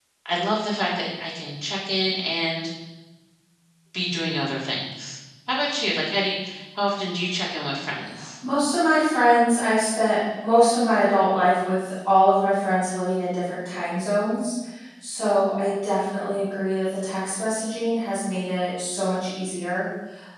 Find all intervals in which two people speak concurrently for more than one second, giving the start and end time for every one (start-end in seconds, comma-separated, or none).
none